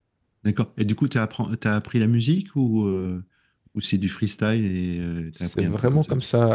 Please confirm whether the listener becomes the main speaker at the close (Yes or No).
Yes